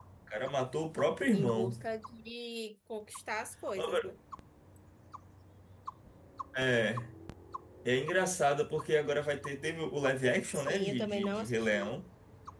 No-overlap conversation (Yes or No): No